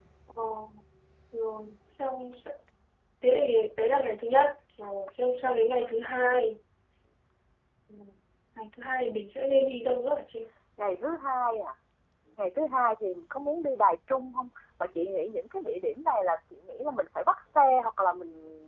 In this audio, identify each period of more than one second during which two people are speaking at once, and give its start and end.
none

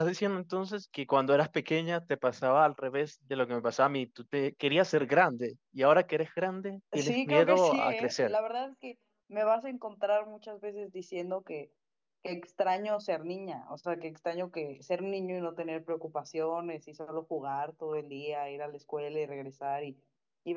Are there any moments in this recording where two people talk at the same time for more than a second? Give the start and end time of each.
6.9-8.3

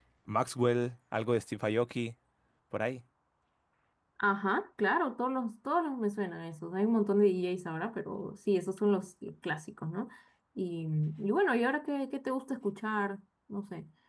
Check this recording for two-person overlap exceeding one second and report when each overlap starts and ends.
none

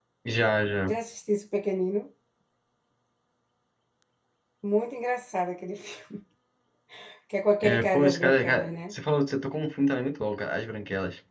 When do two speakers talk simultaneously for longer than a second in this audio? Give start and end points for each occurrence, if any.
7.6-8.9

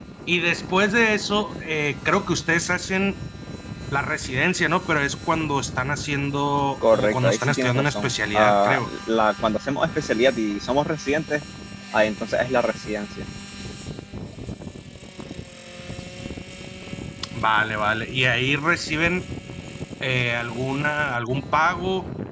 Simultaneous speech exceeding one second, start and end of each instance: 6.9-8.9

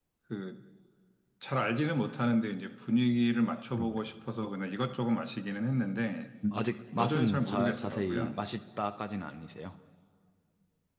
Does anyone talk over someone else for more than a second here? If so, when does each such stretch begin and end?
7.0-8.4

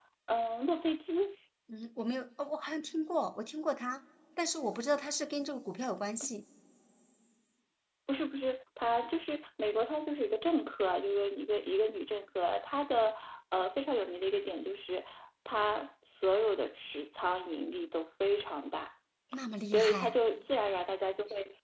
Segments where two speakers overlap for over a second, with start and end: none

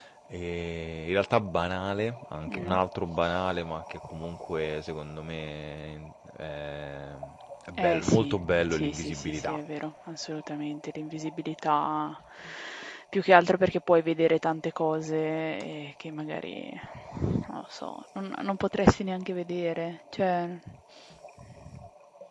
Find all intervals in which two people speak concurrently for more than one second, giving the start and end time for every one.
7.8-9.6

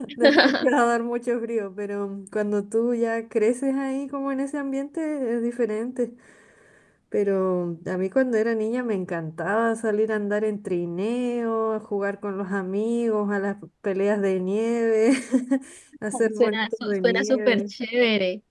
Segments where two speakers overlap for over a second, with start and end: 16.1-17.7

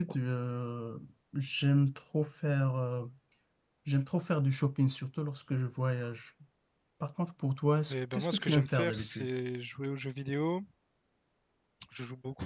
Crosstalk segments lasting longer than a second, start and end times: 7.9-9.3

